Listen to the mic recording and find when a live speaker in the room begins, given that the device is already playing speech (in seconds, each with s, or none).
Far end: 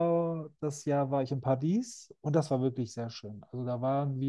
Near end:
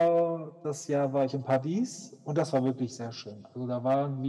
none